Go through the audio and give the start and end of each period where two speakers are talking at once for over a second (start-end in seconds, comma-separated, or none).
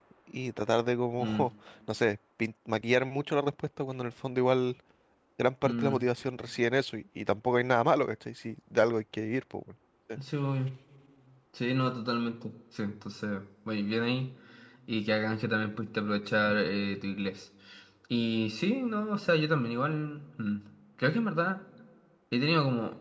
none